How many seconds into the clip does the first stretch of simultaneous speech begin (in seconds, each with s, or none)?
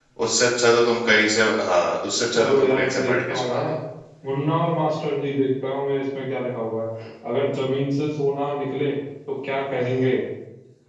2.4 s